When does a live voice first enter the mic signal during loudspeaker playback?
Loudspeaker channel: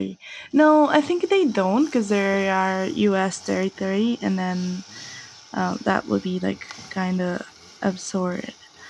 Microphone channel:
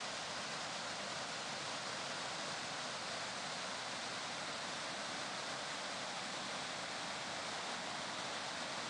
none

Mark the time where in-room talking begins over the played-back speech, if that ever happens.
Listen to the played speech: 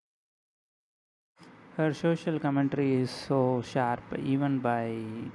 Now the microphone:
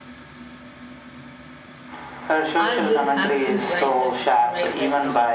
2.5 s

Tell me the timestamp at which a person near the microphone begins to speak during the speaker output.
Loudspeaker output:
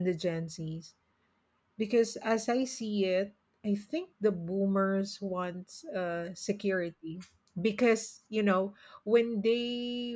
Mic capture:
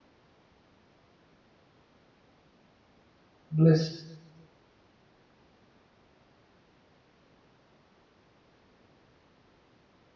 3.5 s

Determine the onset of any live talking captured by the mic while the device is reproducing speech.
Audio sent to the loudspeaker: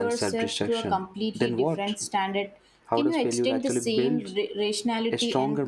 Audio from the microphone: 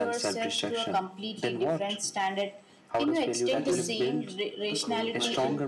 3.5 s

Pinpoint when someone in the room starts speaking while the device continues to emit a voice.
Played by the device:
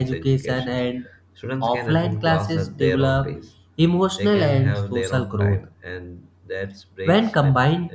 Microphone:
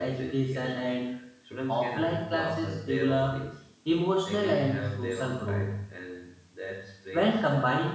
none

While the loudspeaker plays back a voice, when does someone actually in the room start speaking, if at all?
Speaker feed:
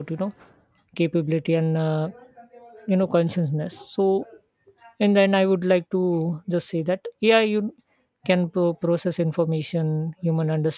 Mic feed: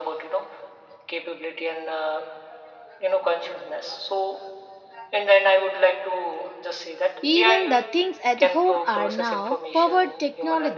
7.2 s

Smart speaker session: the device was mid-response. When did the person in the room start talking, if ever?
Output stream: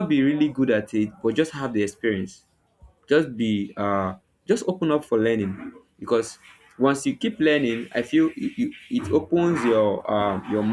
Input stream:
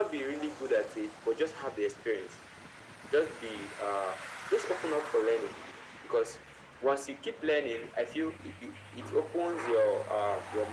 none

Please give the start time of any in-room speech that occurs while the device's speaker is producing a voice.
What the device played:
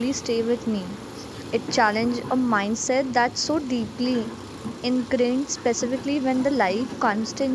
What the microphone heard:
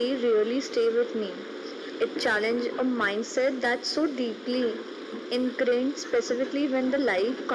none

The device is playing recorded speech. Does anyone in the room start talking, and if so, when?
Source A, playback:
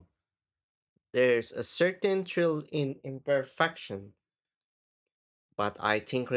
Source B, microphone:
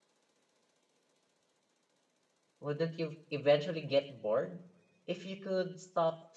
2.6 s

